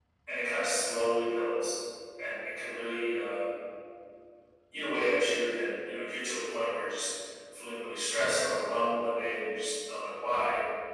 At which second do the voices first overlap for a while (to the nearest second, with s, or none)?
none